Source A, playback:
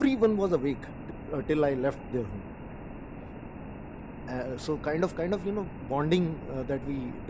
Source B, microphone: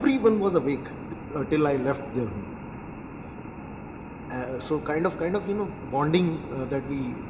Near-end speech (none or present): none